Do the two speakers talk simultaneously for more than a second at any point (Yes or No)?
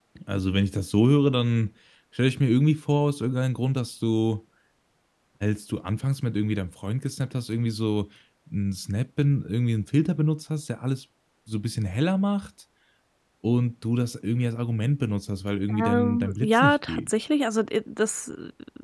Yes